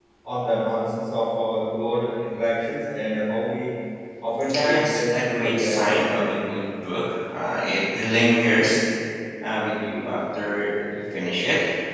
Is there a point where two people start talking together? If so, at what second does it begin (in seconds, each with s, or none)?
4.5 s